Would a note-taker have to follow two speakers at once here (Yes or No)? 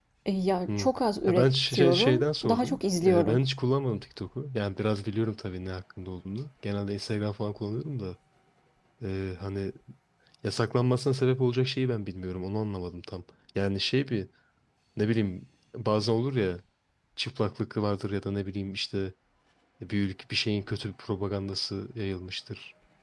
Yes